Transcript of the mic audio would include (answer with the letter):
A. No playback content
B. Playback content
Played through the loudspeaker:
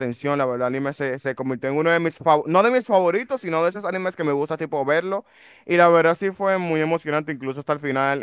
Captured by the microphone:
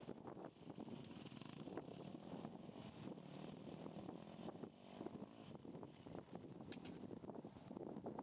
A